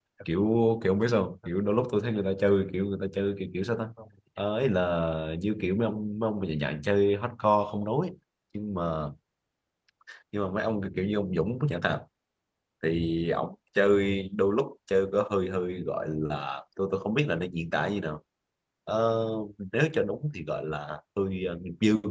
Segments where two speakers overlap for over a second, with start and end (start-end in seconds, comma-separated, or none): none